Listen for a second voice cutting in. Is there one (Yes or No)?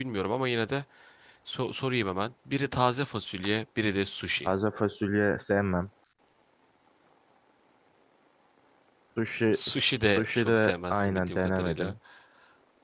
Yes